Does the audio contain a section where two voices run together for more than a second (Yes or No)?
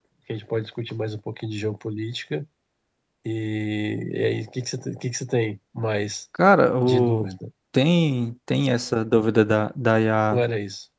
No